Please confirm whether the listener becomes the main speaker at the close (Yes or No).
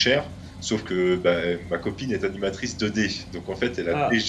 No